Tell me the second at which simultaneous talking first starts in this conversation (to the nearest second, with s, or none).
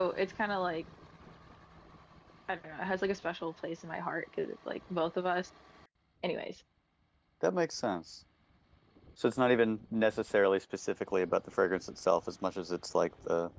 none